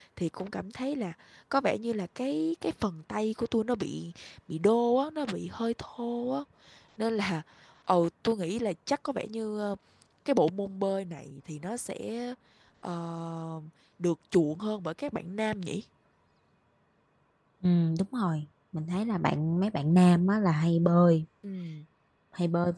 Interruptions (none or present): none